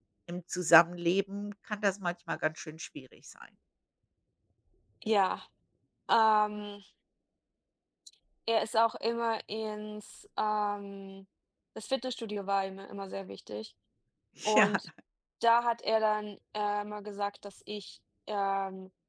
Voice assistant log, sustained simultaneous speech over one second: none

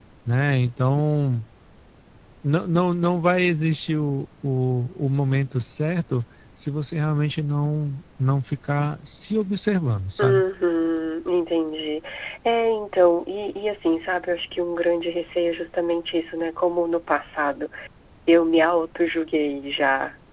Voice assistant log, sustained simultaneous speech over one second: none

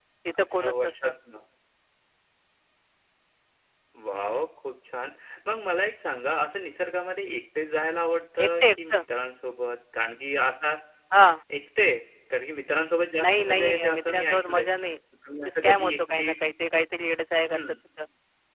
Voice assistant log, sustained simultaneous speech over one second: present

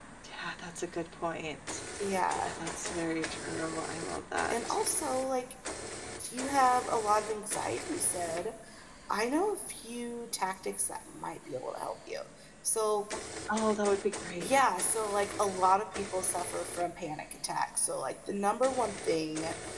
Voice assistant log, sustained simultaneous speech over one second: none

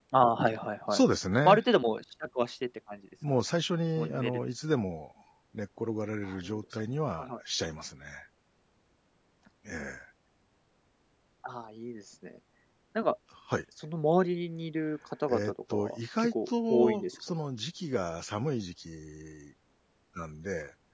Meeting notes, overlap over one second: present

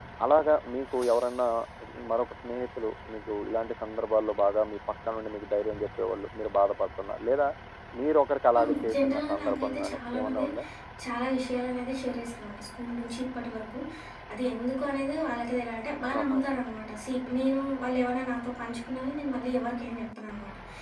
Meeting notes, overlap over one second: present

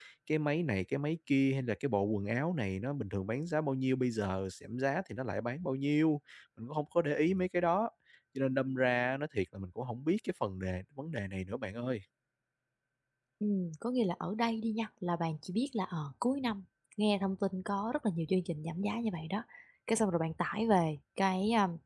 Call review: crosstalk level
none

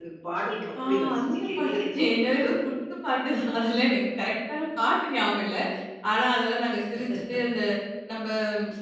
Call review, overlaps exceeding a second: present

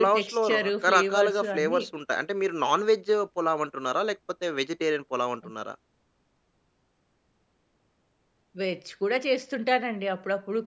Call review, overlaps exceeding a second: present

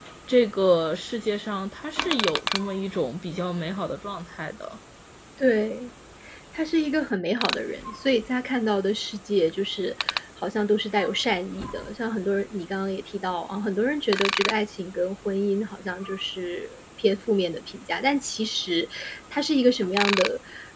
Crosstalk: none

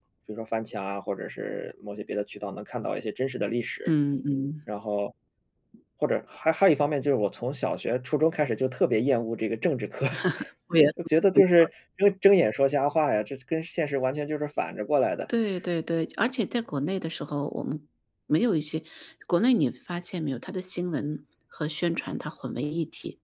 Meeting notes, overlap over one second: none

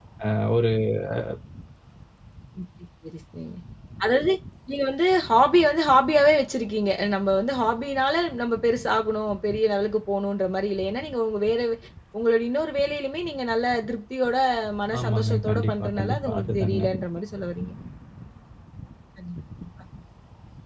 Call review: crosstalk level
present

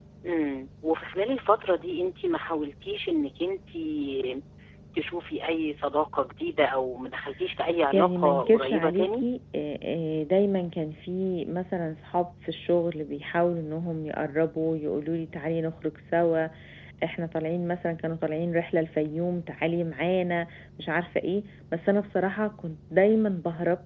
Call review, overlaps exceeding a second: present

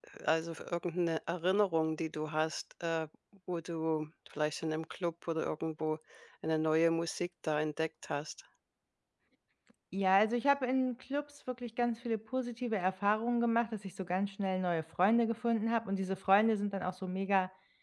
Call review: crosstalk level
none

